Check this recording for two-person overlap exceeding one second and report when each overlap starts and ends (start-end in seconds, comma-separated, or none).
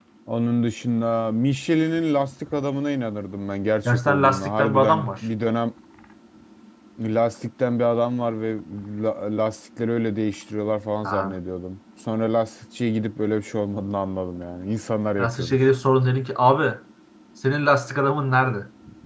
3.8-5.1